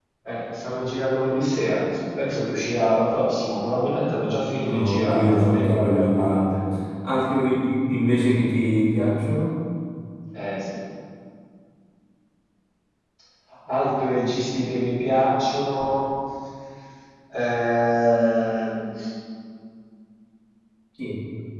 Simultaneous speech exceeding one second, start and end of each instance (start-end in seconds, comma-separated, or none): 4.7-6.6